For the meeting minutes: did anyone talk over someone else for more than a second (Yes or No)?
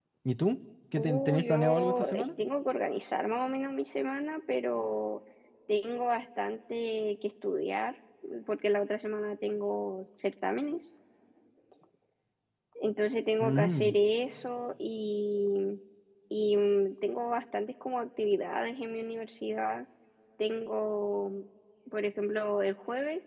Yes